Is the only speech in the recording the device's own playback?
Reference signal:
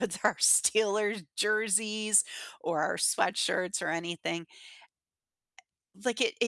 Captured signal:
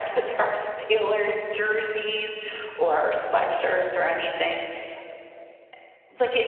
Yes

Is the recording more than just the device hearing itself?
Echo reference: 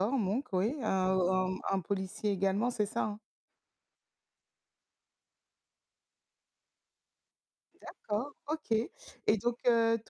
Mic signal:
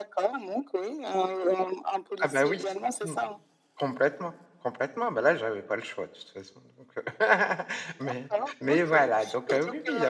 Yes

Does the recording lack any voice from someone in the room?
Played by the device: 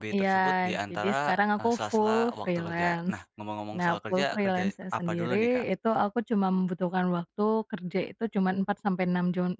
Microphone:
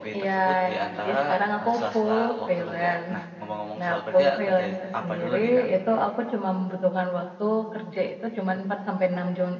Yes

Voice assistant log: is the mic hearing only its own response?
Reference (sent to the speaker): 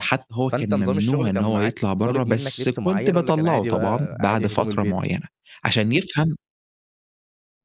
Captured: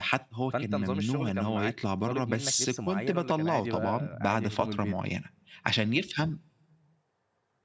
Yes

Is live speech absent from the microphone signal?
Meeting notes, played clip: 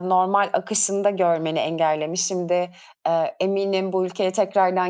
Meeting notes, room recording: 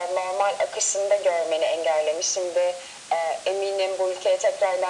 Yes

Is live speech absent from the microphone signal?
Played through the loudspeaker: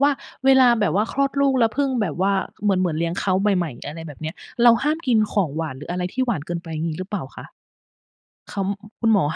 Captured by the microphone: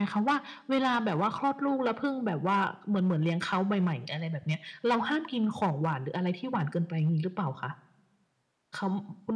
Yes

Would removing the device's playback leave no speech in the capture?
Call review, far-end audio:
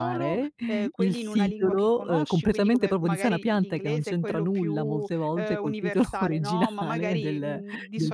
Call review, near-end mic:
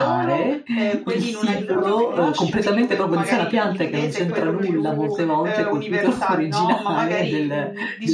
No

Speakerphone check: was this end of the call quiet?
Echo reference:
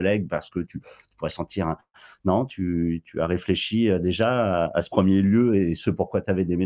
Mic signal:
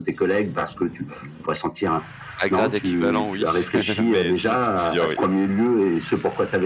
No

